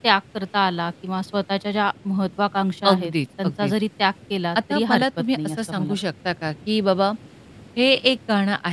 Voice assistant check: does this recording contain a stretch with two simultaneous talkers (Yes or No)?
Yes